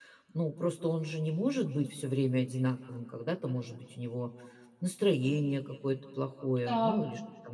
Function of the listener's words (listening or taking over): listening